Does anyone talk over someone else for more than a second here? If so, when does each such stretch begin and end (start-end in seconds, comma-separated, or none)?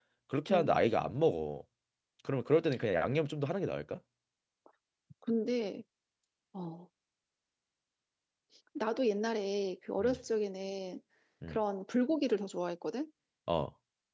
none